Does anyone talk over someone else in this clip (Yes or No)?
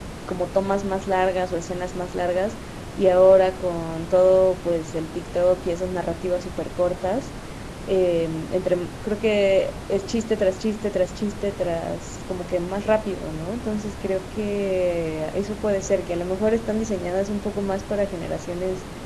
No